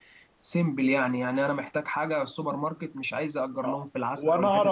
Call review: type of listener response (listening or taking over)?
taking over